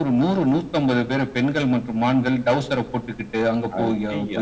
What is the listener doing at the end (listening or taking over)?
listening